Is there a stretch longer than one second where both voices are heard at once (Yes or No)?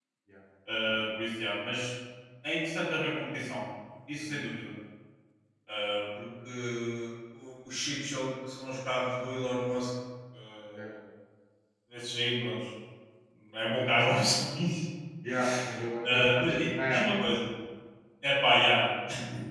Yes